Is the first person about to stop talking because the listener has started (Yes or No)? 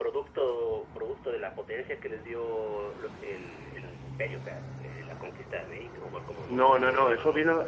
Yes